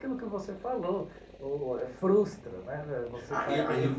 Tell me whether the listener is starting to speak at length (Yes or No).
Yes